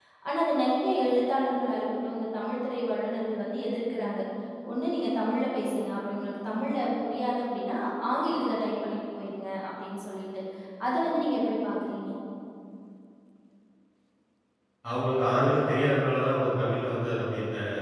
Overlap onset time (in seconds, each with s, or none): none